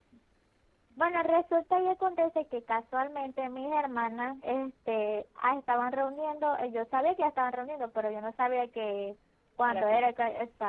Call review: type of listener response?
listening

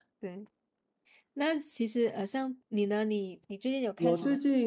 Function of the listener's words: taking over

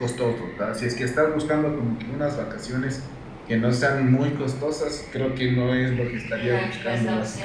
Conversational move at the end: taking over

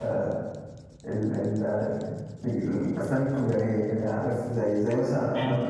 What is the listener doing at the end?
listening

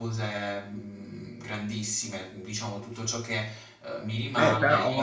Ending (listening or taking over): taking over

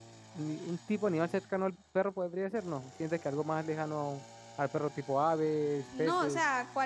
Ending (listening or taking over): taking over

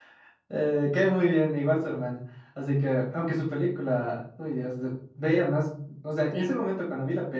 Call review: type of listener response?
listening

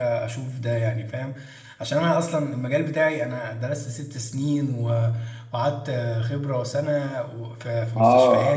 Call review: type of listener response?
taking over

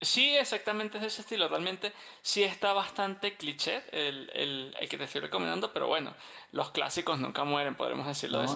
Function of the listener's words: taking over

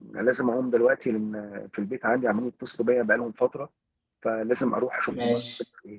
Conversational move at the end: listening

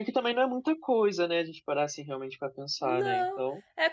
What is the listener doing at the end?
taking over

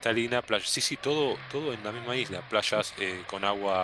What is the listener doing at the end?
listening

